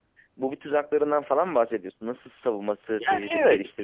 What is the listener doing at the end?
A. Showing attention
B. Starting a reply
B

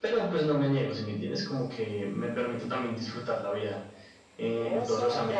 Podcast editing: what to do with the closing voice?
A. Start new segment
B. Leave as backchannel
A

